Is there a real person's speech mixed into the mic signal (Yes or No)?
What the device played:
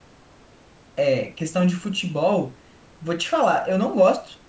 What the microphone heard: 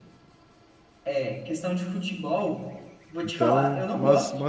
Yes